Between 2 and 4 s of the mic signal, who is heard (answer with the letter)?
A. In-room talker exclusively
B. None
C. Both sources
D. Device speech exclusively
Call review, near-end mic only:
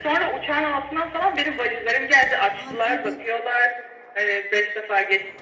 C